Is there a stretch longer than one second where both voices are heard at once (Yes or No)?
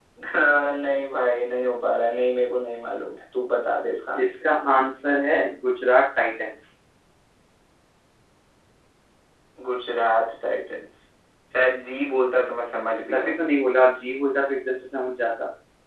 No